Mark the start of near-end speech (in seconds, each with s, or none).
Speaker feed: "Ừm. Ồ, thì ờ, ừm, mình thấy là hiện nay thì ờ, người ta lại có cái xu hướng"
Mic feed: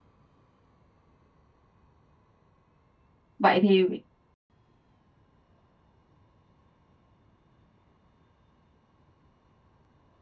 3.4 s